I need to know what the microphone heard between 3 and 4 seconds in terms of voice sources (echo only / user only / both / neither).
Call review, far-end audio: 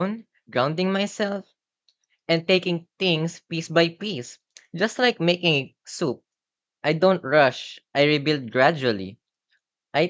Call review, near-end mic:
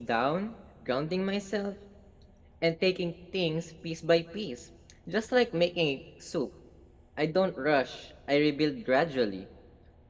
echo only